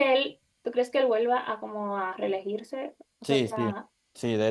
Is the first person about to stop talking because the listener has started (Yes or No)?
Yes